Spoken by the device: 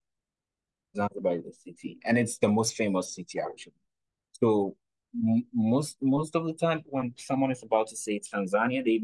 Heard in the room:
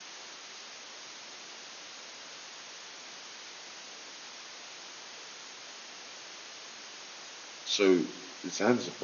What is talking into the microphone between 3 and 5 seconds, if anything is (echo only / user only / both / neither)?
neither